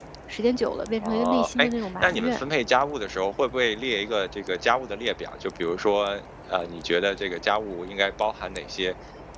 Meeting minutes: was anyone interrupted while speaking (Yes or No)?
Yes